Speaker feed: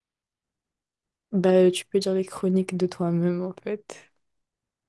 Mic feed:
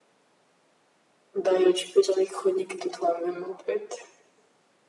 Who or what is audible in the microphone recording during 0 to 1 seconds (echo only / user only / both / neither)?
neither